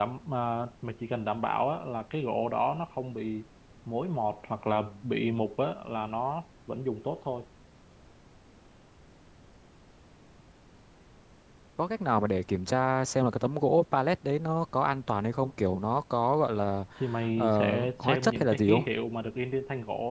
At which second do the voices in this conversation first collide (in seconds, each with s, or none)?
17.4 s